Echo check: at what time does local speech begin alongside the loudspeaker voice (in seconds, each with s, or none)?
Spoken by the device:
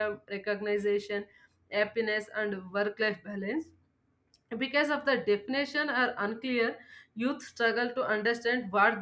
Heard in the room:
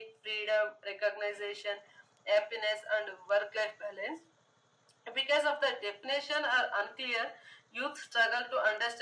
none